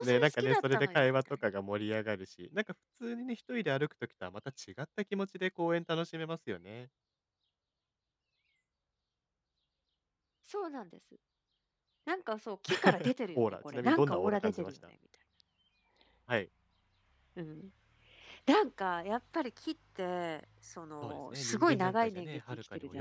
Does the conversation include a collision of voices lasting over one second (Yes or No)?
Yes